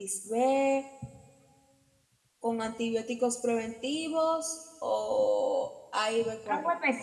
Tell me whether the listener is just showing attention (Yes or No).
No